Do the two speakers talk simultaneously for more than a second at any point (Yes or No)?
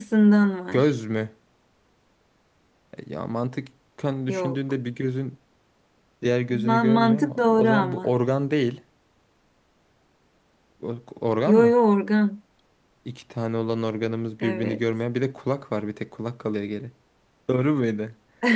Yes